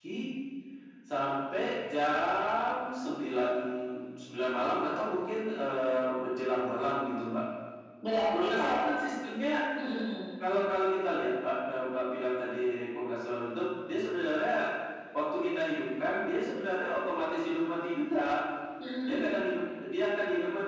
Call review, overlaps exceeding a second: none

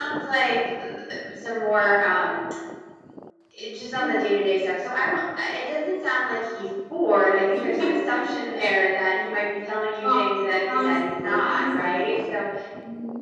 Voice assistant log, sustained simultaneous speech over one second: present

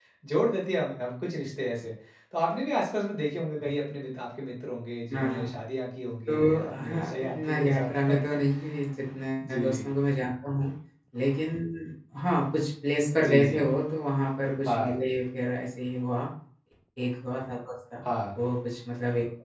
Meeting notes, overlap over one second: present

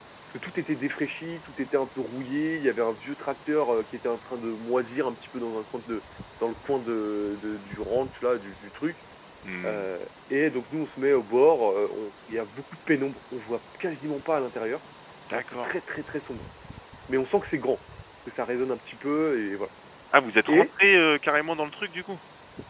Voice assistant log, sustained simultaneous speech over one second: none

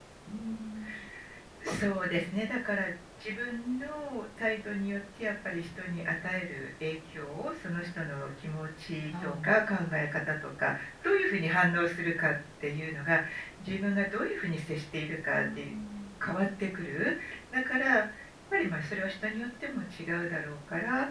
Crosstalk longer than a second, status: none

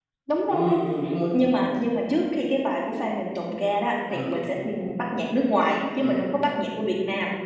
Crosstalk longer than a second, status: none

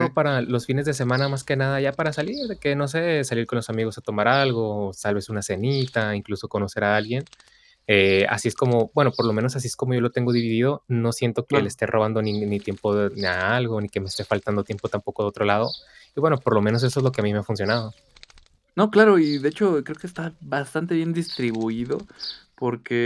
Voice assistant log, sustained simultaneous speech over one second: none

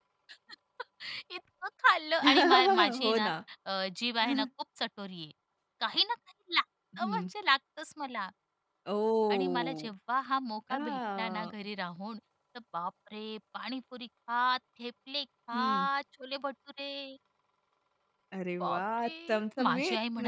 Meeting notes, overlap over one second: present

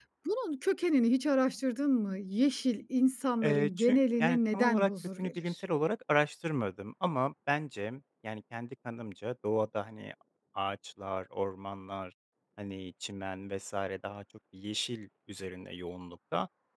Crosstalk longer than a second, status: present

